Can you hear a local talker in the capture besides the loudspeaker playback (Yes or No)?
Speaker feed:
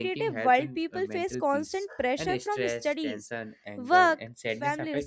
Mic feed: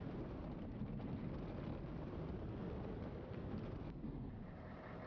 No